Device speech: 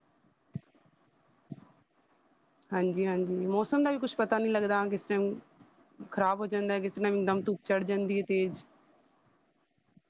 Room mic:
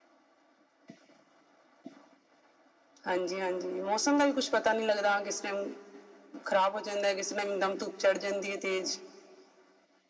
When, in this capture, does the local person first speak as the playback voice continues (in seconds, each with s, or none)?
none